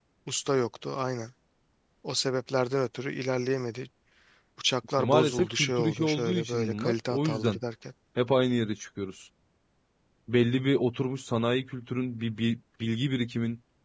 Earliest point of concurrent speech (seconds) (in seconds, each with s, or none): 5.0 s